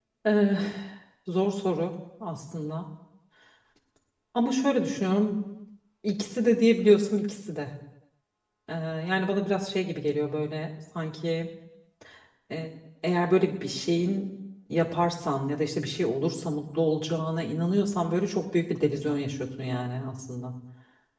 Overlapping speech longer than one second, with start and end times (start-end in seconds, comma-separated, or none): none